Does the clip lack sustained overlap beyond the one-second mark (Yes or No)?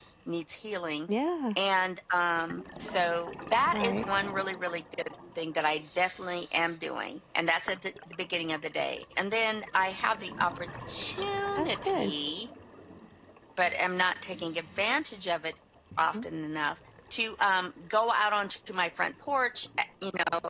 Yes